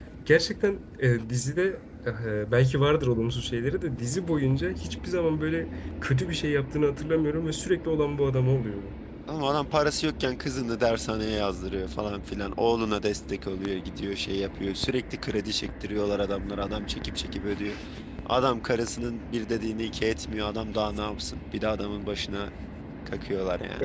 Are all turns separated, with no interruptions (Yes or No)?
Yes